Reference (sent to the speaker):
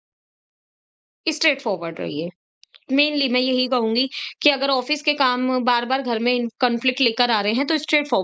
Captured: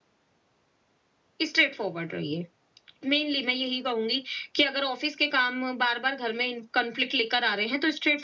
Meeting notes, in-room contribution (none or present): none